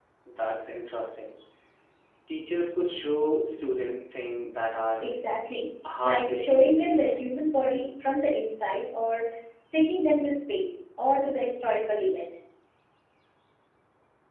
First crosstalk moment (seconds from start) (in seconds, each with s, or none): 6.0 s